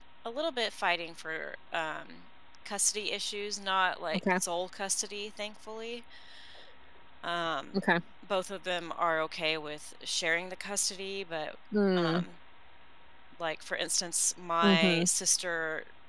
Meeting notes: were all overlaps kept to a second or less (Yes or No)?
Yes